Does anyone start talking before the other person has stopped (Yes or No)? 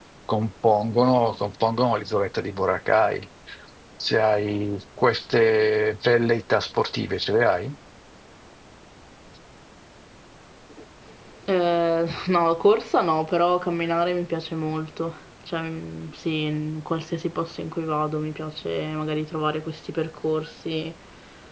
No